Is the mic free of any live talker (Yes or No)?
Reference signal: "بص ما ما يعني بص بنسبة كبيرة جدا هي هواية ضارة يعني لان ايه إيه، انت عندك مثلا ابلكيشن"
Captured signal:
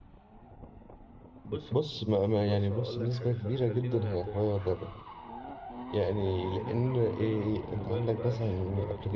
No